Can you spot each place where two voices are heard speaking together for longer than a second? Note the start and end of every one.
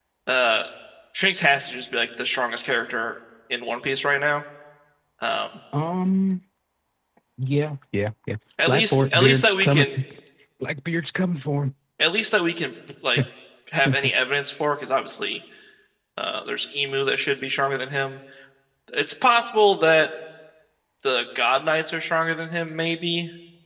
8.7-9.9

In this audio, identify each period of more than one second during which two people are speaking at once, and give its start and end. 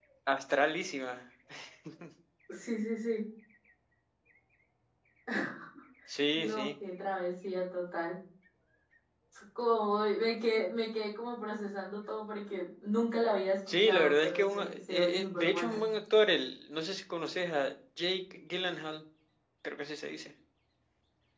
13.7-15.8

